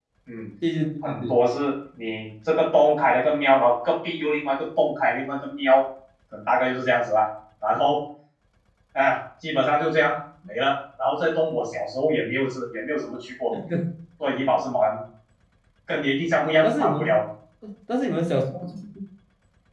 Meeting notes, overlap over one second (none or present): none